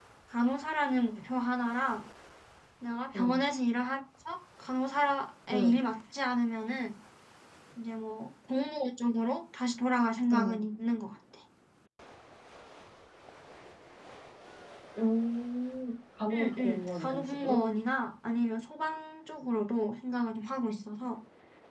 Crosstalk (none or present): present